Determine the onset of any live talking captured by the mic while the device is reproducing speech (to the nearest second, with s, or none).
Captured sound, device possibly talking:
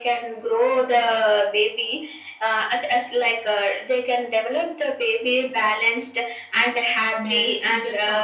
7 s